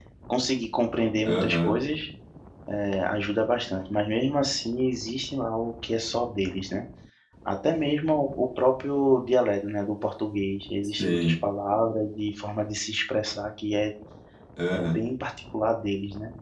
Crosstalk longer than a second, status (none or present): none